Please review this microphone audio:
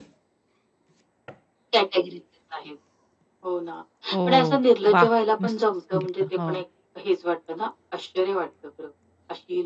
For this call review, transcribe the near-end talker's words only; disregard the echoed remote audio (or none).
हो. वाह! मस्तच सांगितलं. हो.